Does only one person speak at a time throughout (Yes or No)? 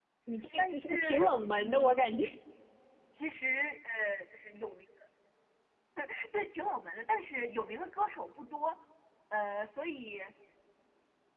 No